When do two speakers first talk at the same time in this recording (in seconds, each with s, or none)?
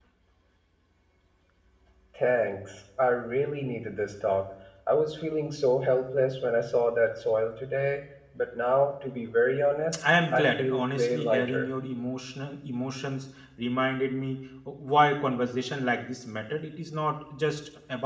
10.3 s